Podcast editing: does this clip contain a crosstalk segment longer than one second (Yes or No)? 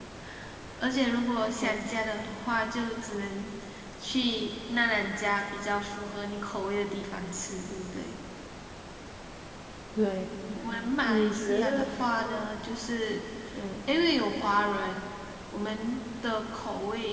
Yes